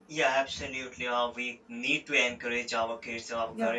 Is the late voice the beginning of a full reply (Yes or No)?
No